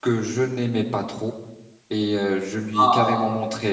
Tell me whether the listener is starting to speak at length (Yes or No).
No